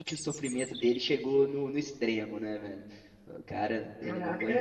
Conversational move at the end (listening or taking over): taking over